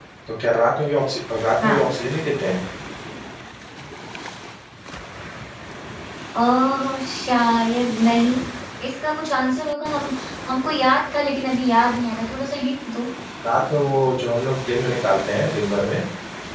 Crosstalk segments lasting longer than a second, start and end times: none

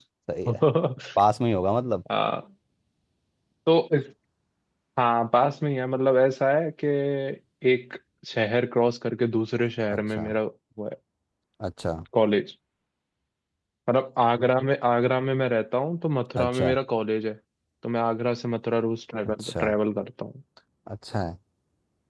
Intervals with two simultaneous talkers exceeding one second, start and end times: none

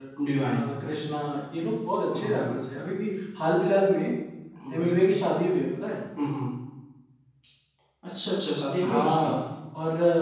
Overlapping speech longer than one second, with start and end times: none

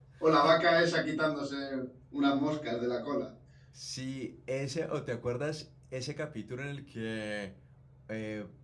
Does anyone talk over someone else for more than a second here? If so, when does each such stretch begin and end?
none

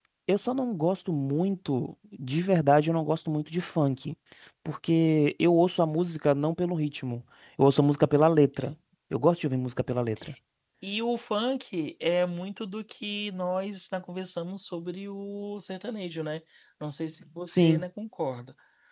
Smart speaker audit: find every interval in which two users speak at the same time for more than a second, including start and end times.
none

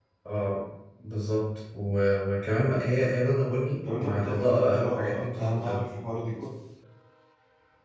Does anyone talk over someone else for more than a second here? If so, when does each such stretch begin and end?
4.0-5.8

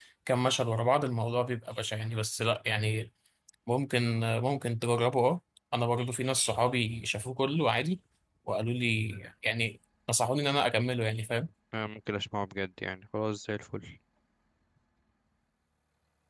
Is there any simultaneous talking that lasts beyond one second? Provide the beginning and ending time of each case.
none

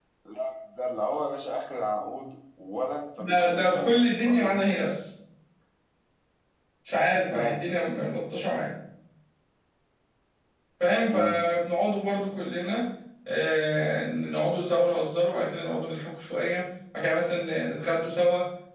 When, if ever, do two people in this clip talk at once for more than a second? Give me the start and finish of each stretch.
3.2-4.6

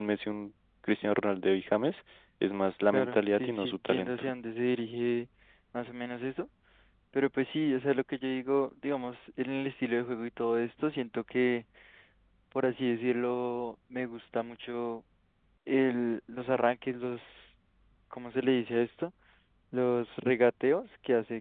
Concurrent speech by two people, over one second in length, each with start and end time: 2.9-4.3

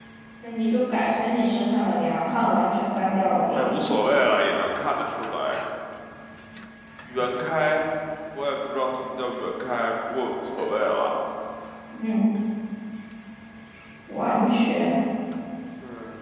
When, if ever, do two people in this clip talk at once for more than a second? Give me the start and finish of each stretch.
none

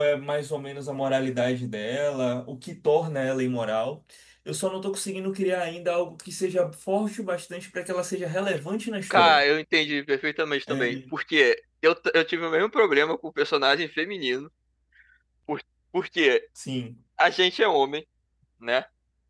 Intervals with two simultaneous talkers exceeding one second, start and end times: none

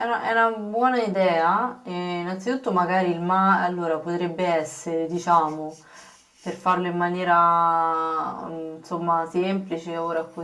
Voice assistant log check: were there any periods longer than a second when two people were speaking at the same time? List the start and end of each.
none

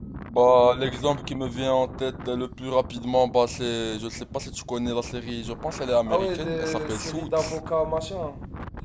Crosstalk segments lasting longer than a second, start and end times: 6.1-7.3

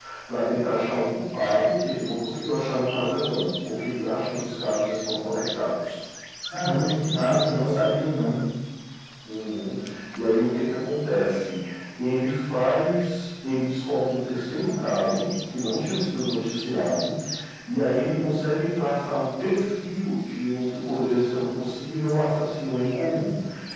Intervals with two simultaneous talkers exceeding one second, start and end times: none

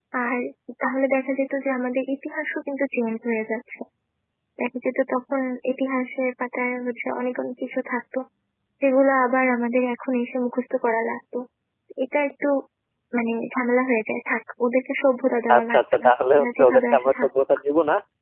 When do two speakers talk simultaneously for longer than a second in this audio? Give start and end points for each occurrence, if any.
15.6-17.3

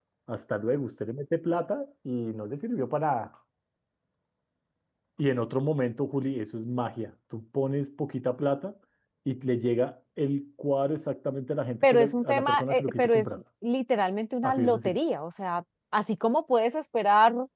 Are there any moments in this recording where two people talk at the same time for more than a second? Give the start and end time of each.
11.8-13.3

